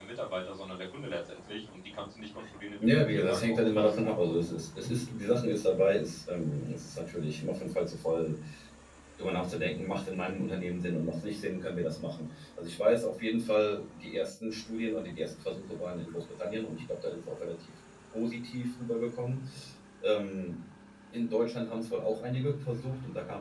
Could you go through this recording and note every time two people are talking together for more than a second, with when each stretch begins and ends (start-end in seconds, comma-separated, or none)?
2.8-4.0